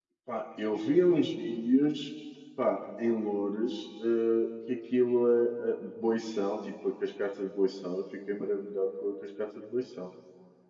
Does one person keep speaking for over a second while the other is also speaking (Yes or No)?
No